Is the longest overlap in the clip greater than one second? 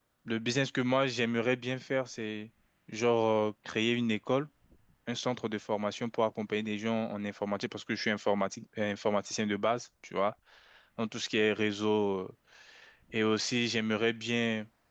No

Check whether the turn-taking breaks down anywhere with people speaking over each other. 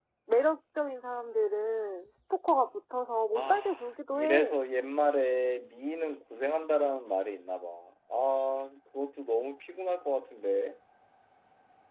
Yes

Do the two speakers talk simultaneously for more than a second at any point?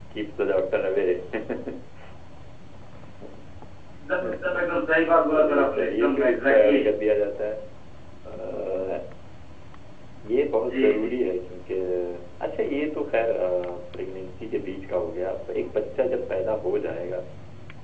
Yes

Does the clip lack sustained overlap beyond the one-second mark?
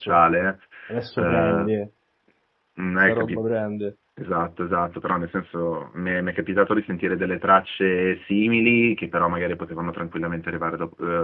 Yes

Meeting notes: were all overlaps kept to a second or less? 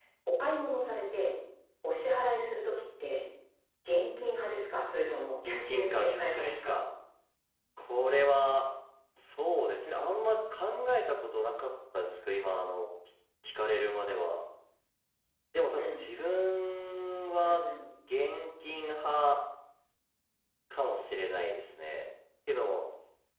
No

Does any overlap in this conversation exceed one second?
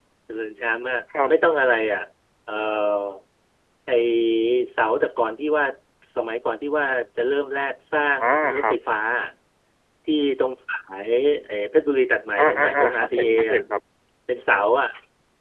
Yes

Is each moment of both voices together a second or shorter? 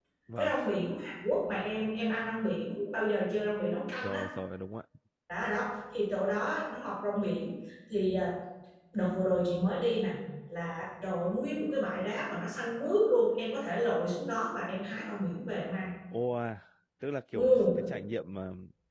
Yes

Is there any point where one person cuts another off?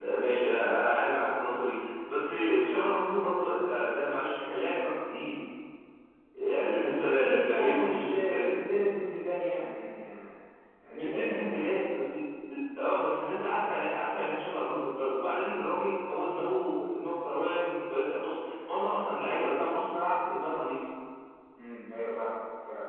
Yes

